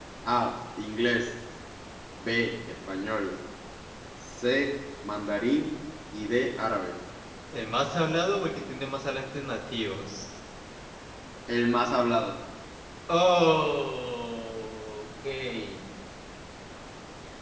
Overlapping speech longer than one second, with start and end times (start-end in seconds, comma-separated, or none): none